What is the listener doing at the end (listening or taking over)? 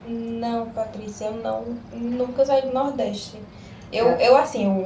listening